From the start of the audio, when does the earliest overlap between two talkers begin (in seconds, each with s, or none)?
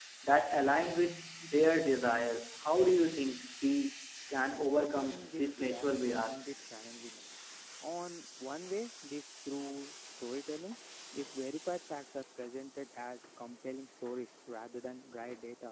4.6 s